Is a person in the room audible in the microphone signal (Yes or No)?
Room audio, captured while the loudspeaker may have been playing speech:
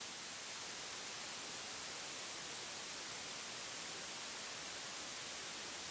No